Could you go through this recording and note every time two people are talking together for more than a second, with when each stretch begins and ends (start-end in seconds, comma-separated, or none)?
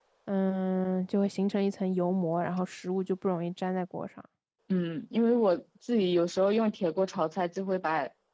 none